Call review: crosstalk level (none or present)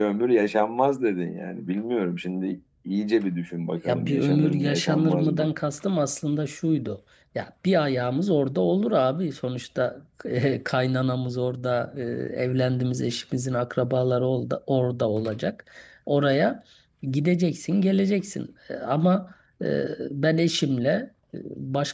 present